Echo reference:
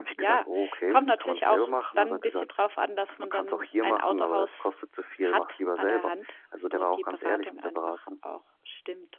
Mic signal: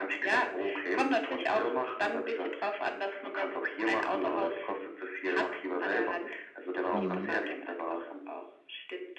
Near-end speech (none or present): present